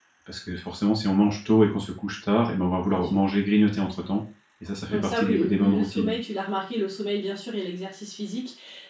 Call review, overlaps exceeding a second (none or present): present